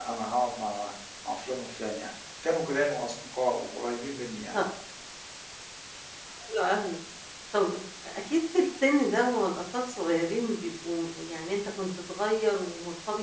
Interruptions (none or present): none